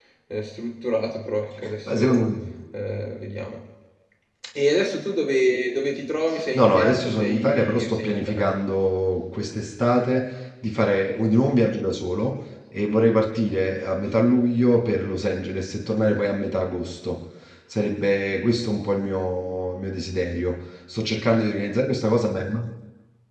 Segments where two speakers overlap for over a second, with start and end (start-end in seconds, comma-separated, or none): 6.5-8.6